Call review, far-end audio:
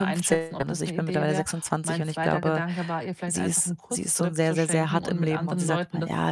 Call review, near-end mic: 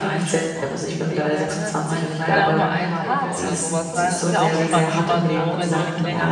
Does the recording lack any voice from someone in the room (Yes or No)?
No